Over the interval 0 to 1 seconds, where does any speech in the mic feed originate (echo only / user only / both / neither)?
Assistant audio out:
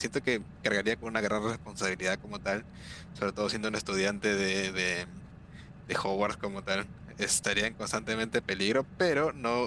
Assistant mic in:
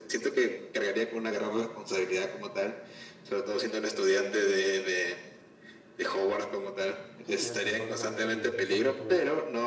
echo only